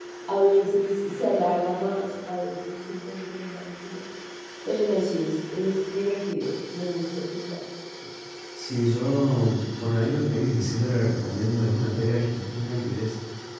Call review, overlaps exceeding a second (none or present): none